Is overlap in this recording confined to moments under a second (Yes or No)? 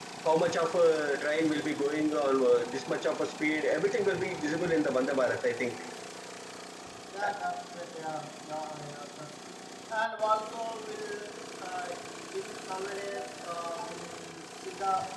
Yes